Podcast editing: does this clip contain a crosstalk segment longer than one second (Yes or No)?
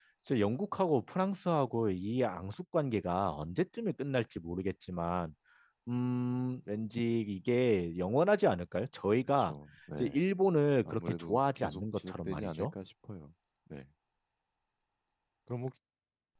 Yes